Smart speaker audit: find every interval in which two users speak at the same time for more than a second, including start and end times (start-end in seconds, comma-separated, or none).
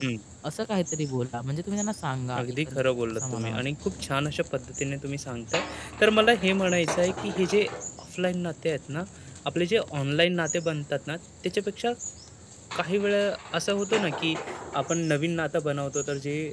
2.4-3.6